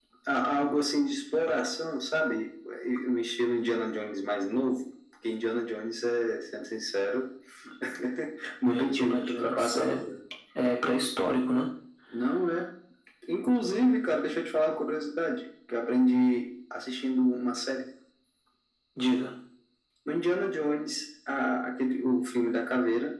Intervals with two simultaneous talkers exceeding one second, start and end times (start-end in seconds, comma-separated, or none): 8.7-10.0